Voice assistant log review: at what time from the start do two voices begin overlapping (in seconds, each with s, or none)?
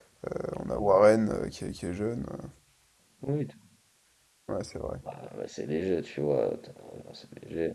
none